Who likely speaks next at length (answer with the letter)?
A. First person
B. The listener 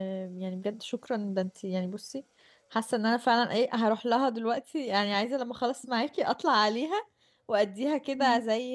A